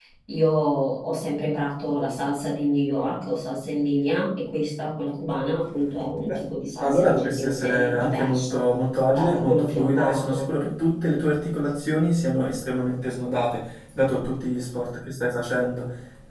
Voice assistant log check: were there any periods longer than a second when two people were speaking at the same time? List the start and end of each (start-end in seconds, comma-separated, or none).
6.8-8.6, 9.2-10.5